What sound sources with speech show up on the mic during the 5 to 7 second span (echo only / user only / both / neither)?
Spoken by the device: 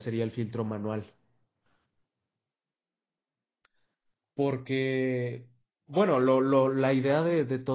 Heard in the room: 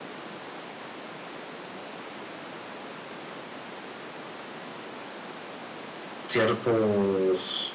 user only